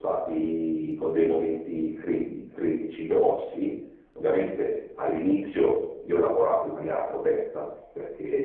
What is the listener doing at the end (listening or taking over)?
taking over